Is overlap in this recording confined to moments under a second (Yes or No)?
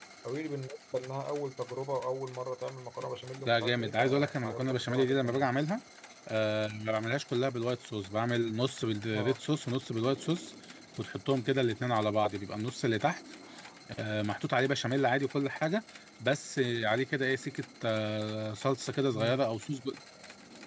No